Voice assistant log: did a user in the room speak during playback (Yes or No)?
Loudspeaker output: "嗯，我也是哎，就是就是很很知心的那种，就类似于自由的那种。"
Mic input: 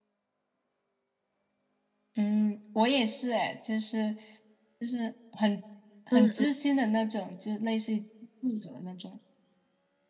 Yes